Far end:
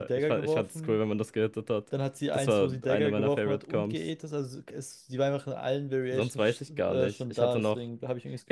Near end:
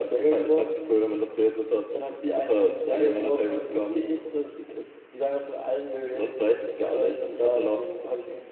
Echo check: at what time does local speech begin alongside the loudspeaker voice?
none

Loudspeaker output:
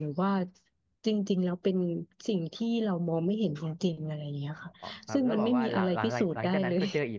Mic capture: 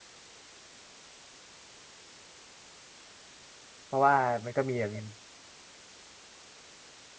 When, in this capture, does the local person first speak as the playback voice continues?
3.9 s

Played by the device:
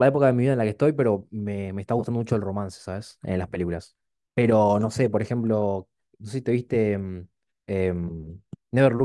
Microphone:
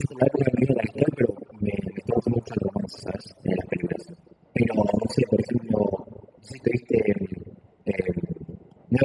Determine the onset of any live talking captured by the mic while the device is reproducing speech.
none

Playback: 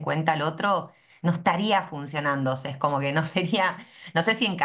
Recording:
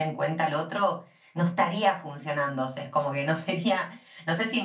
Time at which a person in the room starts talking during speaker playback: none

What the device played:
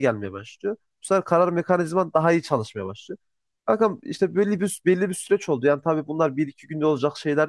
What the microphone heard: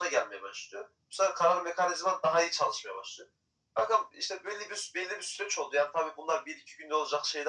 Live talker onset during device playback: none

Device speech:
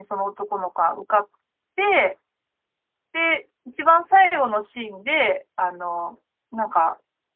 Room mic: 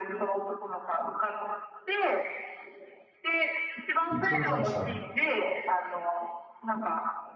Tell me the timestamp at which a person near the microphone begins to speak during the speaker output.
4.1 s

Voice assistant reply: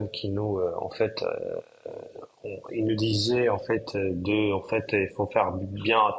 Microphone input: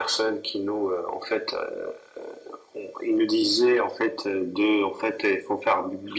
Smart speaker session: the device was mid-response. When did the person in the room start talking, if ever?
none

